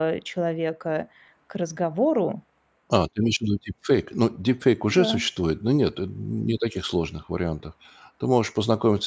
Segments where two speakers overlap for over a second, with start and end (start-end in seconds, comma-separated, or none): none